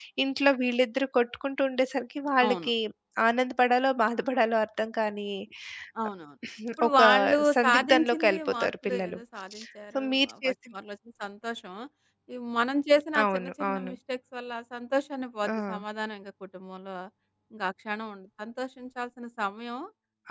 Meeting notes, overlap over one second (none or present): present